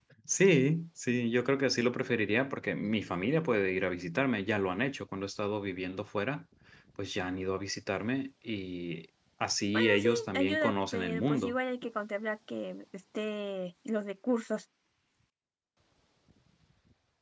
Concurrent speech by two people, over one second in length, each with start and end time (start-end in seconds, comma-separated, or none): 9.7-11.5